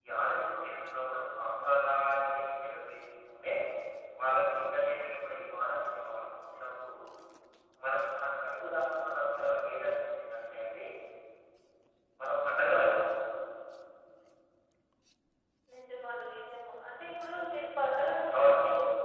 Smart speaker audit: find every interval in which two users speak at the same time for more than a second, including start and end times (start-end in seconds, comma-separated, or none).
none